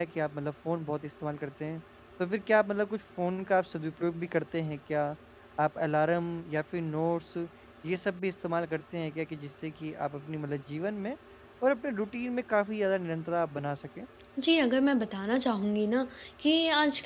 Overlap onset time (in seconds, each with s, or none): none